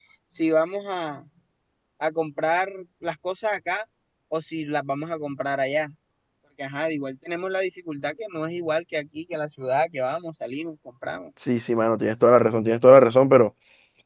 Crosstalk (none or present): none